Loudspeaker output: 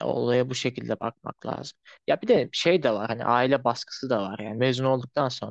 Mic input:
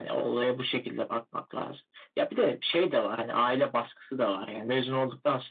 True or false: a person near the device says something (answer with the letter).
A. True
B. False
B